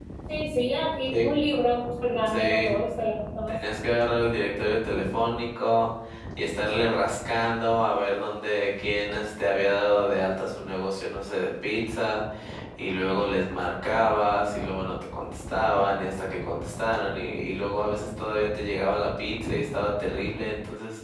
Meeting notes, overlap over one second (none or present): none